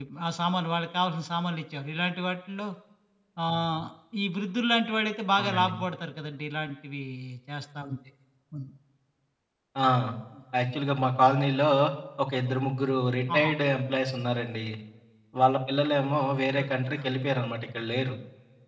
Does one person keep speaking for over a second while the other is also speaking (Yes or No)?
No